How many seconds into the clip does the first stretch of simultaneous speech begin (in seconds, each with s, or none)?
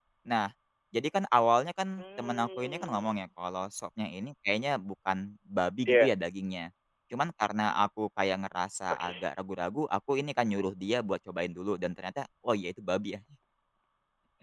2.0 s